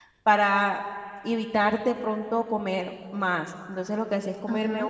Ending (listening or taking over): listening